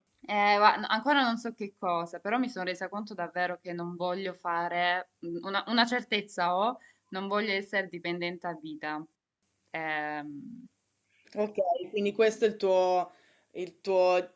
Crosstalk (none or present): none